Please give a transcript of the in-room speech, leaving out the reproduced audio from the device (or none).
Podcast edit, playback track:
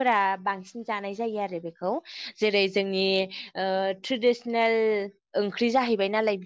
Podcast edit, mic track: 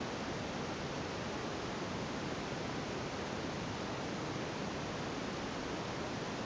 none